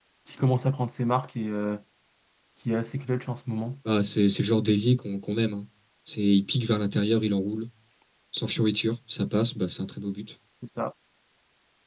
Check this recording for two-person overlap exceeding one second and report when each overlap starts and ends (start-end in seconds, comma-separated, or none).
none